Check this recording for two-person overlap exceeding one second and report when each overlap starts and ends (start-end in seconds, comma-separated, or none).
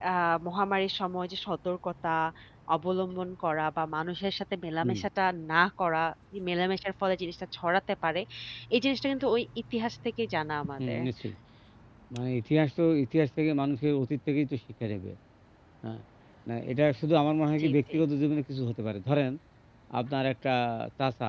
none